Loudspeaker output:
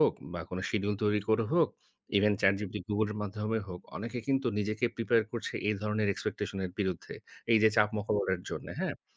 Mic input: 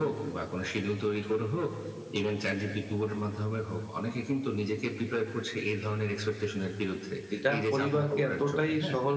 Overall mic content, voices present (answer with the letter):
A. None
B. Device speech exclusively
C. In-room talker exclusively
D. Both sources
D